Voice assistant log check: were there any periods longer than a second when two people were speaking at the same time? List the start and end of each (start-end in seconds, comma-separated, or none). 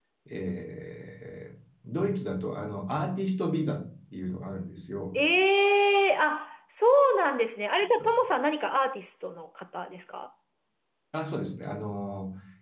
none